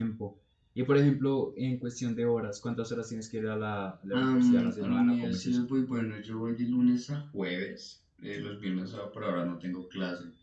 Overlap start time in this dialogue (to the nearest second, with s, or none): 4 s